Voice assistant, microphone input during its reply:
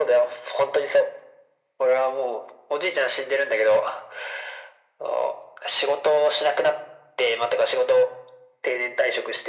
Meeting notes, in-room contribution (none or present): none